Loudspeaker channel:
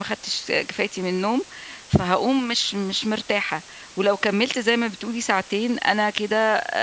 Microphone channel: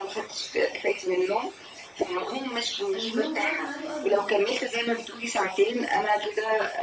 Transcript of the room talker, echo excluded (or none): النوم خلاص ميعادُه قرَّب.